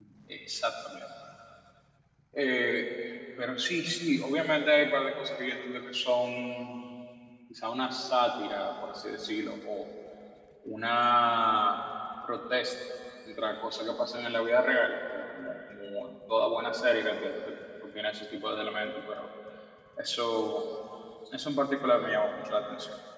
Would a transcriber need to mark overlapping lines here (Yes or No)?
No